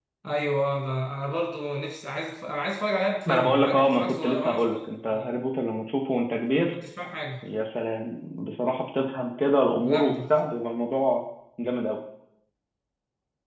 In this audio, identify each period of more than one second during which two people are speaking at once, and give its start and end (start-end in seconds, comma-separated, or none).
3.3-4.8